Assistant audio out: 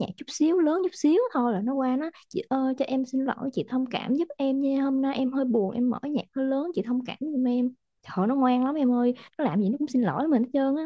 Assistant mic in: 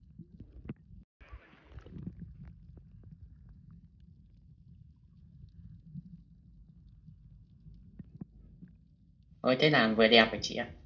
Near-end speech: present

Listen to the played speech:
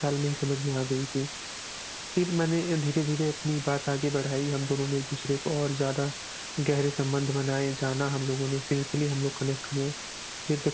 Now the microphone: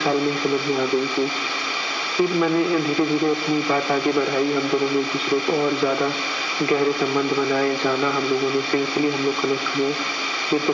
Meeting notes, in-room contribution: none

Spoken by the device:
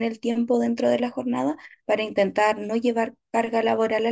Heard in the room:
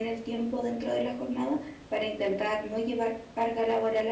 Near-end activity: none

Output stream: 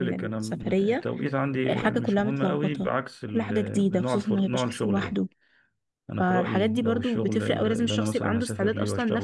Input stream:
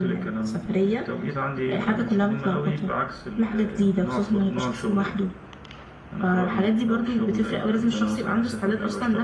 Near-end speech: none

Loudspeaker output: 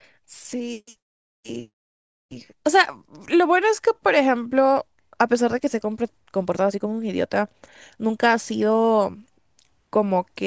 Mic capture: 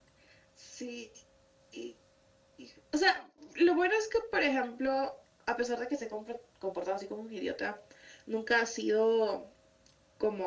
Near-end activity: none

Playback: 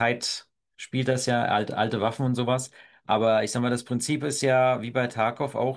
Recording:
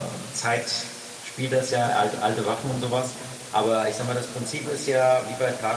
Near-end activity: none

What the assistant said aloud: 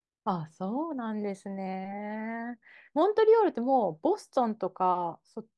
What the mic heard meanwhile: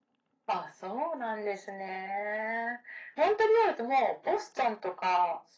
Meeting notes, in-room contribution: none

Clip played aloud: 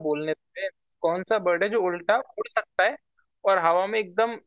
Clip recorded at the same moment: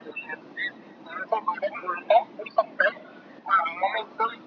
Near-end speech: none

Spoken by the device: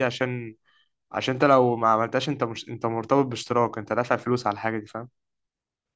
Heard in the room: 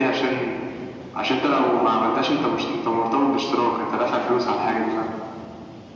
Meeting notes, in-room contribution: none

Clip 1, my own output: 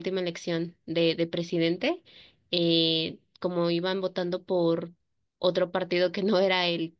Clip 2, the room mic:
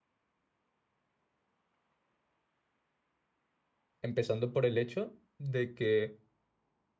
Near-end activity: present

